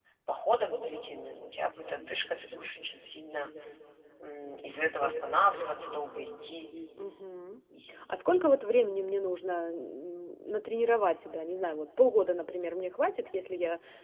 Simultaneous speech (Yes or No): No